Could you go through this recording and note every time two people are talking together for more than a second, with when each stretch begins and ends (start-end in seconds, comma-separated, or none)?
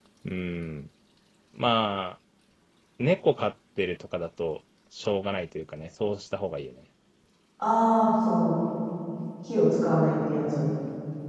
none